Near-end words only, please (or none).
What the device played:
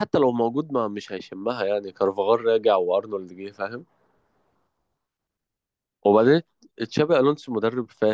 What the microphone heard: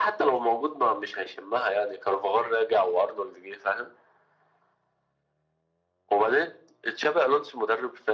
none